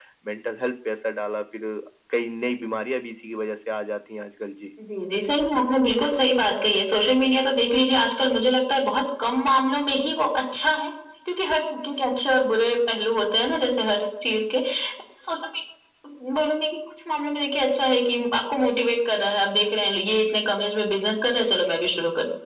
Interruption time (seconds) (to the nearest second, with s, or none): none